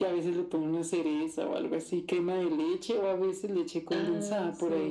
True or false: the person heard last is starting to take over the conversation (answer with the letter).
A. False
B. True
B